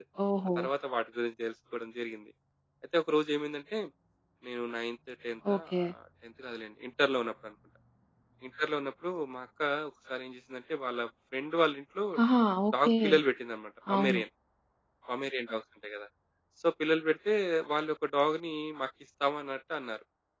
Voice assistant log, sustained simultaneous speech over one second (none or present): none